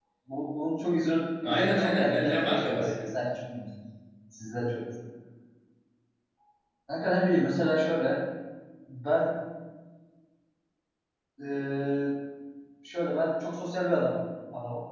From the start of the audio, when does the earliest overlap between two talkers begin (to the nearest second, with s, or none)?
1 s